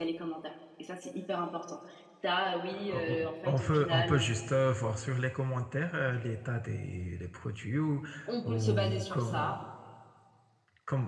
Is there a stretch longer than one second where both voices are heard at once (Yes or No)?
Yes